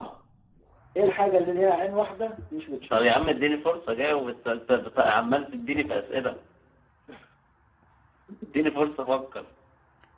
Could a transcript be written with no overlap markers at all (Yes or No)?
Yes